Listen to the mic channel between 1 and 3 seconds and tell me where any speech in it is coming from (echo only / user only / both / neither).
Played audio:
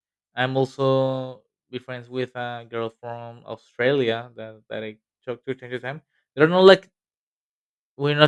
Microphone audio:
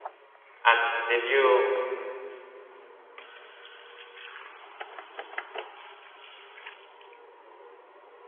user only